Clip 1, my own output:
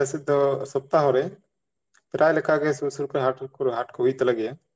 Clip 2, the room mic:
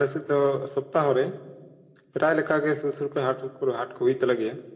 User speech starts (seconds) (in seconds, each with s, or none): none